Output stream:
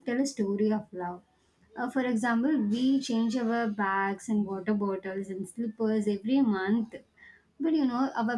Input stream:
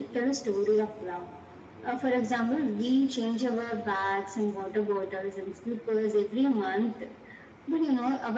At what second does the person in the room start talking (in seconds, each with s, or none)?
none